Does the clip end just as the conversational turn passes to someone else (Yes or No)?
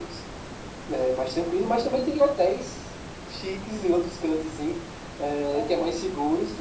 No